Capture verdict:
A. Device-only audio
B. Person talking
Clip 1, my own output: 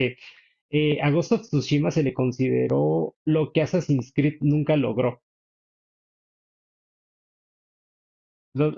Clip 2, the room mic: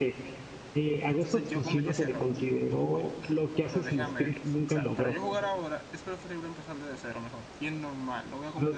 B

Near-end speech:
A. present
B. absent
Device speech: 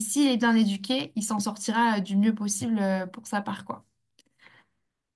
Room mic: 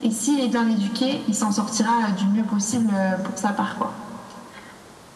B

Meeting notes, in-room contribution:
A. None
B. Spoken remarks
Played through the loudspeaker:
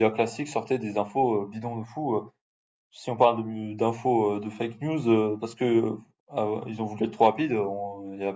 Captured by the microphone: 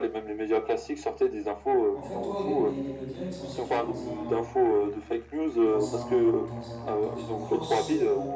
B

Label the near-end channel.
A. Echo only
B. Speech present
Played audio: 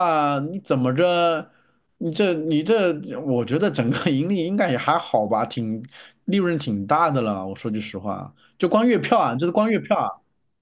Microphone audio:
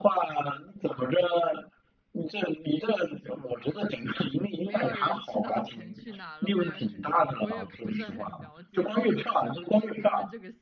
B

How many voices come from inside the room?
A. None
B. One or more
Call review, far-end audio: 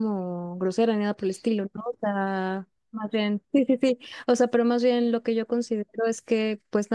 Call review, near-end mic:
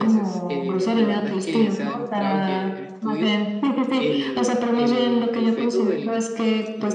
B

